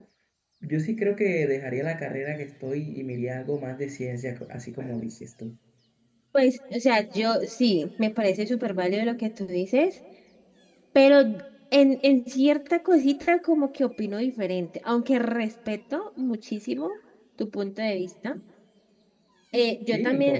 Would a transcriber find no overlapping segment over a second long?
Yes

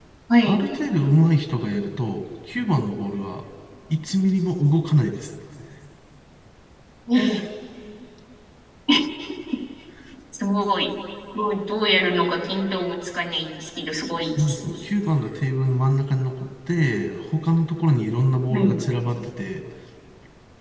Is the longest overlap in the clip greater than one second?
No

